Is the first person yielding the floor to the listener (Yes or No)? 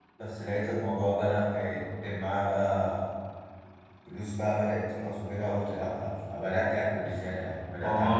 Yes